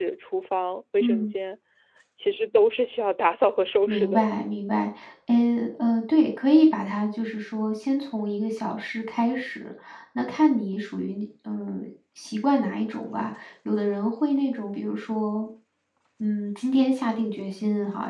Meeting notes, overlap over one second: none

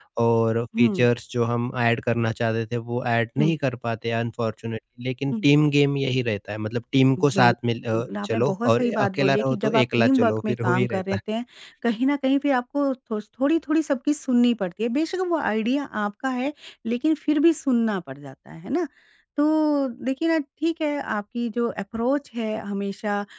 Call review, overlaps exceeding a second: present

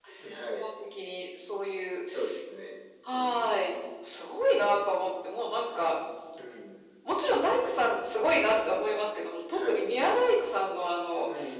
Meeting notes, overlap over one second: none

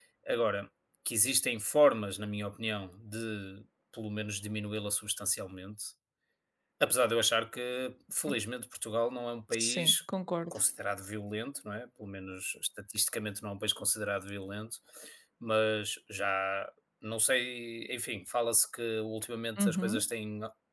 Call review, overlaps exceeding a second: none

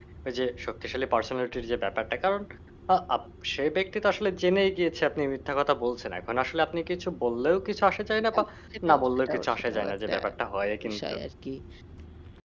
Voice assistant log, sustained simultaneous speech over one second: present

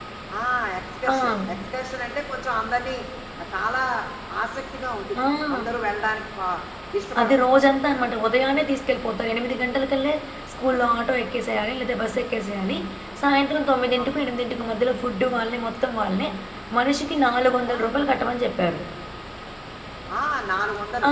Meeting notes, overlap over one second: none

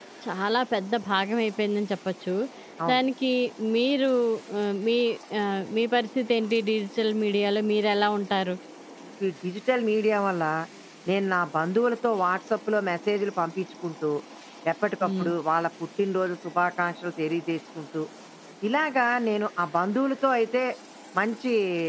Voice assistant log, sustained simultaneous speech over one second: none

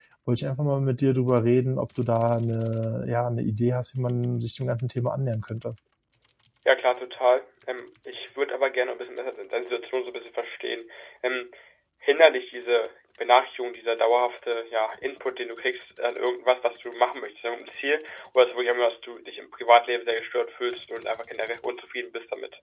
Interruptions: none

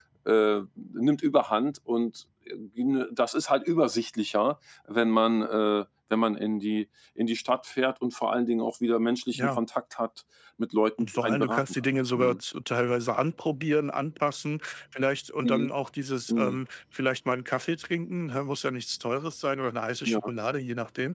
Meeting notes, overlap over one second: present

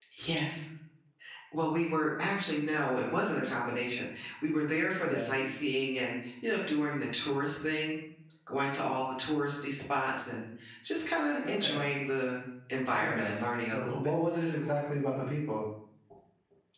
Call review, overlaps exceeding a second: present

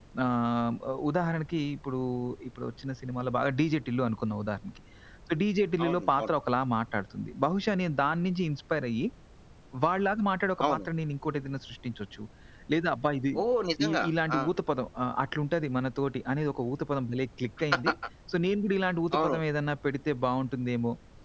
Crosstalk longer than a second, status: none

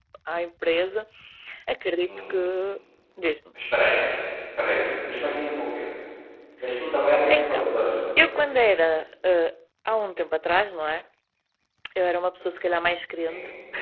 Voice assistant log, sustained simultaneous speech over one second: none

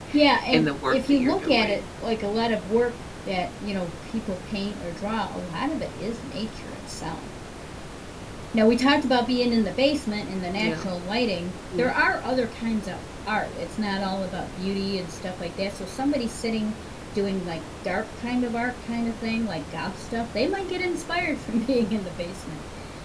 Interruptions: present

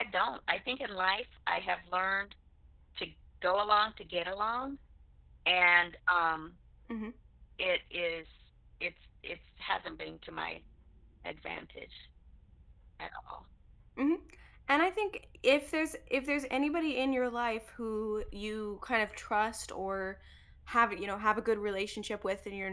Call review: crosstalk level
none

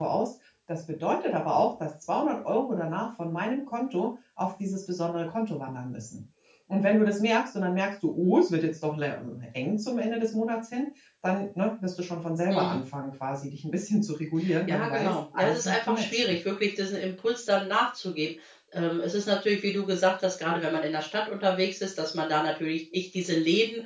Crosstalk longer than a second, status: present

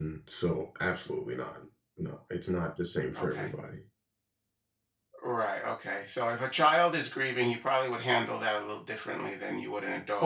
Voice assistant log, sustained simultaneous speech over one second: none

